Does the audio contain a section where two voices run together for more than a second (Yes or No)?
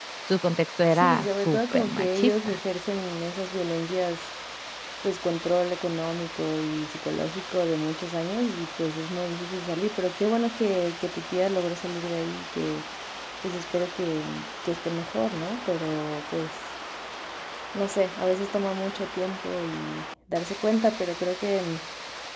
Yes